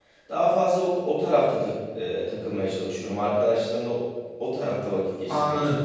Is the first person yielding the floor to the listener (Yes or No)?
Yes